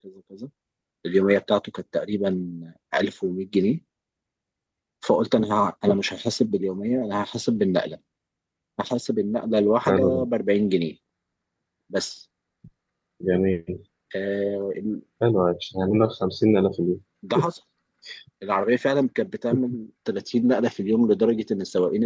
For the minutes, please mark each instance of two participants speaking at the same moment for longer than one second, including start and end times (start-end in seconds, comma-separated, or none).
none